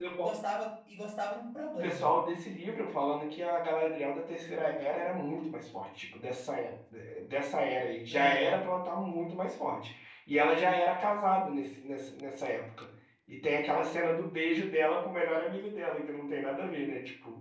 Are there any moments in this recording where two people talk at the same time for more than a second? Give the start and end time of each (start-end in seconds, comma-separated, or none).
none